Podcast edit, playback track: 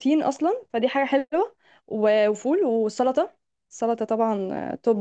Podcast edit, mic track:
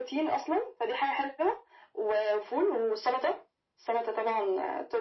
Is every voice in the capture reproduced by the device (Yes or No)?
Yes